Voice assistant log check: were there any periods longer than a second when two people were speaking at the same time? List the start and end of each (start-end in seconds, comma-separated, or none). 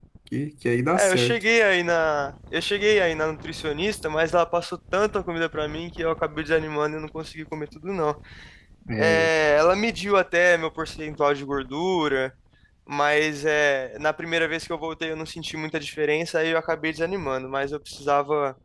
none